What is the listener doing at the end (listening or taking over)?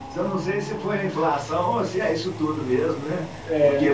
listening